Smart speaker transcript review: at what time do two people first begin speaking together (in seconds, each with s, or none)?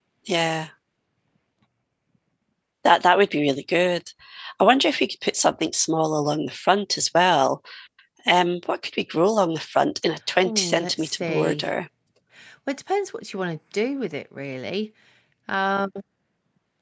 10.4 s